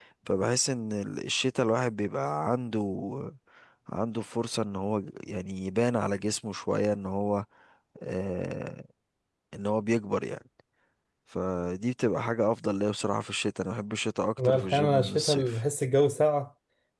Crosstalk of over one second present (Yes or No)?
Yes